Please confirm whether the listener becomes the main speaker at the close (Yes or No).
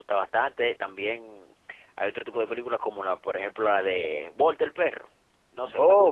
No